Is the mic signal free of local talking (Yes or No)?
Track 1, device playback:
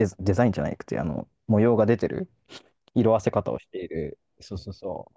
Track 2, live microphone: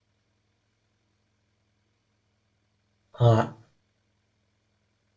No